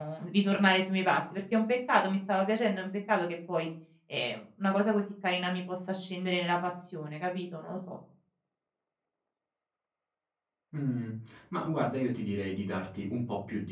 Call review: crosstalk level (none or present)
none